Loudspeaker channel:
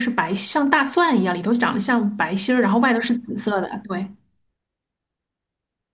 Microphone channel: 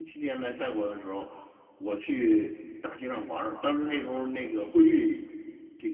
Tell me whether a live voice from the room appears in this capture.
Yes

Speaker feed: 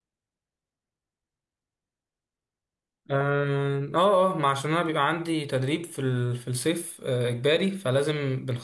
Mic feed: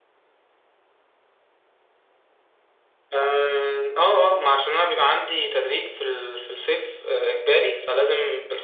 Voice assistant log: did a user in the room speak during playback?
No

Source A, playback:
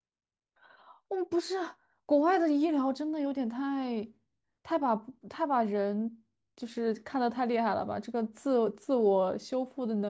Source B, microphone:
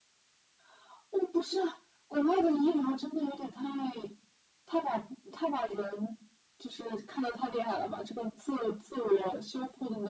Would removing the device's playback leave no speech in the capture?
Yes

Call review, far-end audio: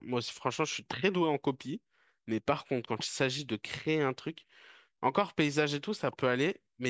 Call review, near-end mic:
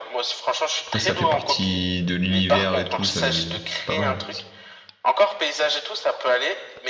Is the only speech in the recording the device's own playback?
No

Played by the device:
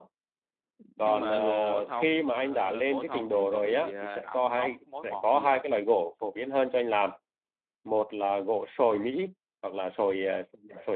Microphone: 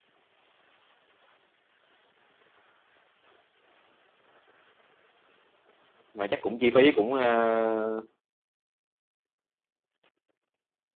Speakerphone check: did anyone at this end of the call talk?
Yes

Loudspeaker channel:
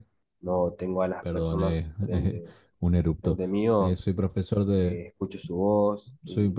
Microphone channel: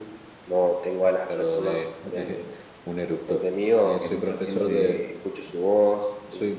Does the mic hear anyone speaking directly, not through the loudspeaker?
Yes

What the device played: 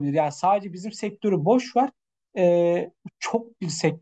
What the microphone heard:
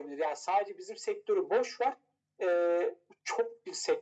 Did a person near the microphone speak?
No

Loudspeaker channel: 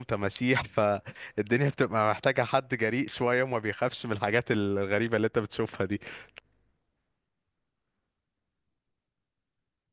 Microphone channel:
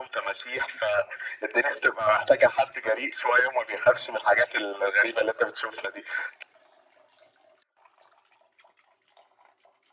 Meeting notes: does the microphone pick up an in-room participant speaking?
No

